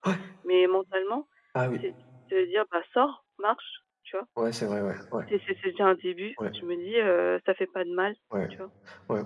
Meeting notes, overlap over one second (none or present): none